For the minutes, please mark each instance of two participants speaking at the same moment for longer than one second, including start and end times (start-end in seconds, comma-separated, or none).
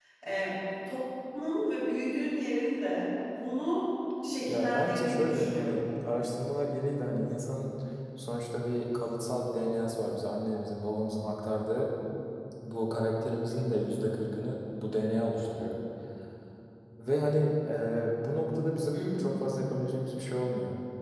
4.5-5.8